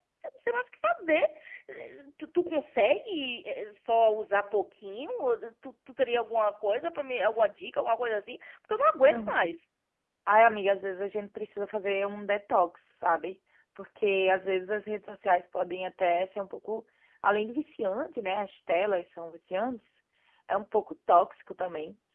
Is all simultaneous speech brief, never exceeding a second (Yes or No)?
Yes